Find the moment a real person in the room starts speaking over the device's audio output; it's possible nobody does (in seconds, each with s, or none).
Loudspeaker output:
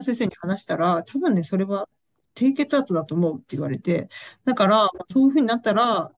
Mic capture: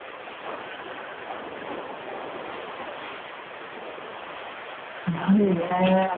5.0 s